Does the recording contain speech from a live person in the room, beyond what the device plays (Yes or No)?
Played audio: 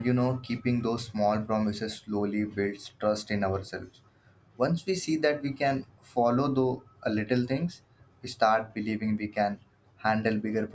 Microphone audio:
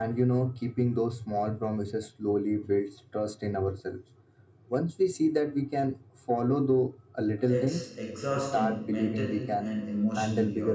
Yes